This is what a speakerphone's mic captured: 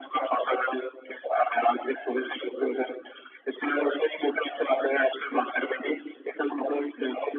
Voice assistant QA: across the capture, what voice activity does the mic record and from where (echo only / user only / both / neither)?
echo only